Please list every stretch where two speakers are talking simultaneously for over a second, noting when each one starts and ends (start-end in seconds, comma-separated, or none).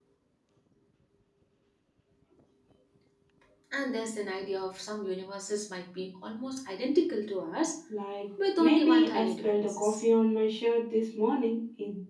8.6-10.0